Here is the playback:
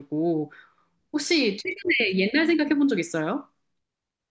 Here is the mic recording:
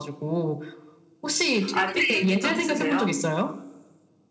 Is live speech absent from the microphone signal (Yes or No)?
No